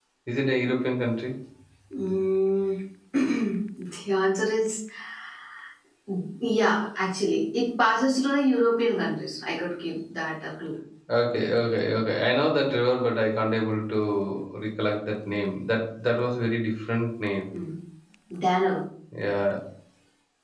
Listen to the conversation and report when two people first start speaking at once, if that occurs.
none

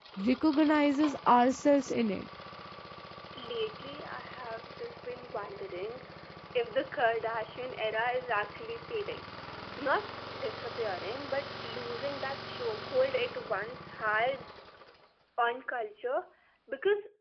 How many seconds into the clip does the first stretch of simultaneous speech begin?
none

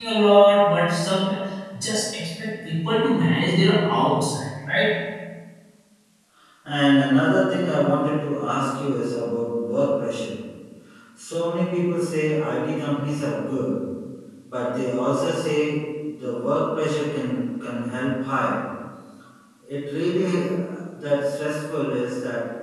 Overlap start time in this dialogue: none

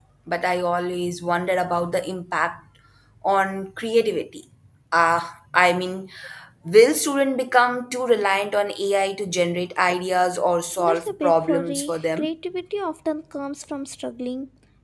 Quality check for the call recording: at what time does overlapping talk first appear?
10.8 s

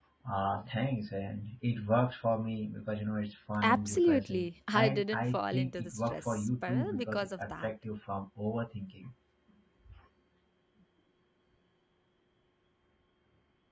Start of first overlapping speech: 3.6 s

